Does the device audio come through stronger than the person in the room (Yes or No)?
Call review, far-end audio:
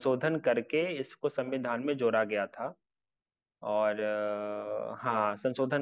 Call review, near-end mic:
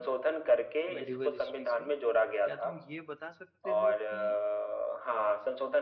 Yes